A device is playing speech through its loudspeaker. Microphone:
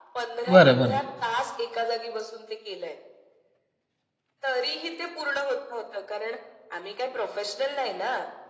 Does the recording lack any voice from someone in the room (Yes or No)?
No